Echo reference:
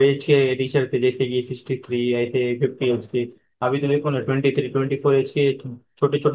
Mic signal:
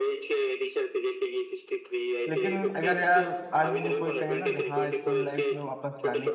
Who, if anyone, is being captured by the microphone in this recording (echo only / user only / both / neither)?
both